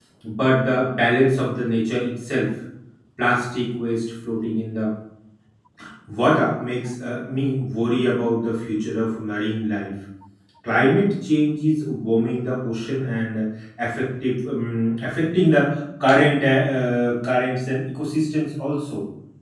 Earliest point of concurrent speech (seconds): none

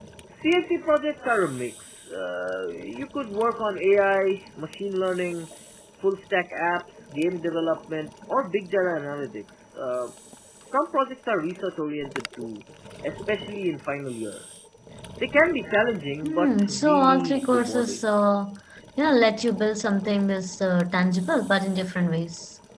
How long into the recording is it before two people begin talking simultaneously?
16.2 s

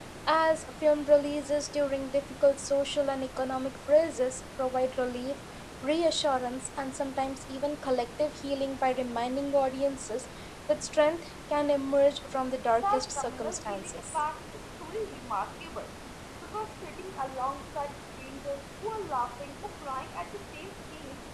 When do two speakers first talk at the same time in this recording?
12.8 s

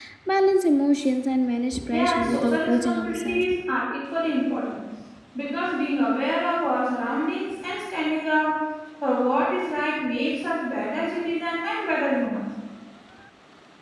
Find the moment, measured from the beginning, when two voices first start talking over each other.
1.9 s

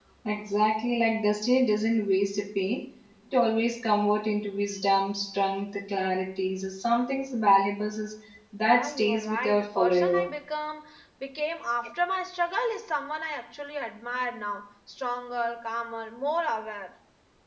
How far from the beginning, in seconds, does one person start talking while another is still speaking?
8.6 s

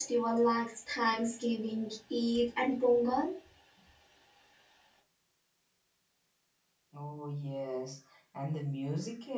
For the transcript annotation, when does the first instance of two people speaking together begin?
none

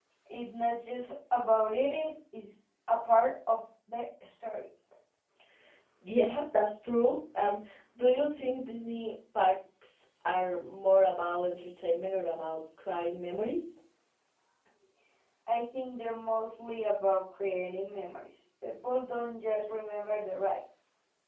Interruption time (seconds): none

